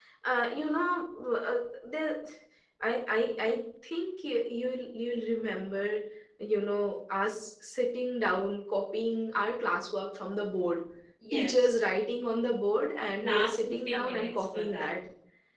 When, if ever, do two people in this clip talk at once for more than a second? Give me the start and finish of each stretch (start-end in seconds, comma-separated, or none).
13.2-14.9